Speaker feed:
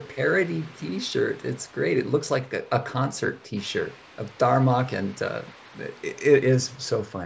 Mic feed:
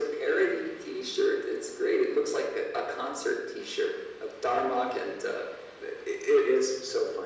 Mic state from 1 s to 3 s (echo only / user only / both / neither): echo only